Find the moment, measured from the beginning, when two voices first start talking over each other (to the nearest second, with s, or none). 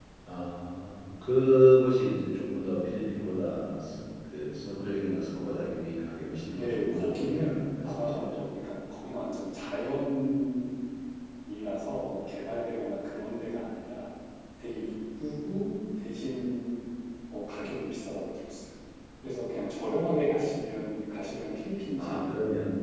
7 s